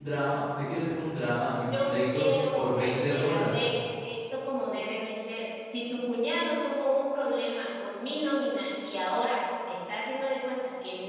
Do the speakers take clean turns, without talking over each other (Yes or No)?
No